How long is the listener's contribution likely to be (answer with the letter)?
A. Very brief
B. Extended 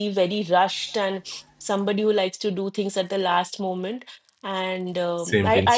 A